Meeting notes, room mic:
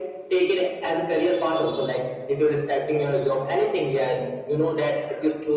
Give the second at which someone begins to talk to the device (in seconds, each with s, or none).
none